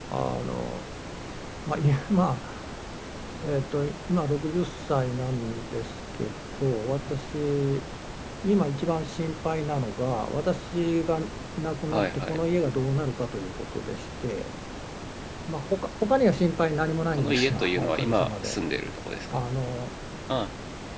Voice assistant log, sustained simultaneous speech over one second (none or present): present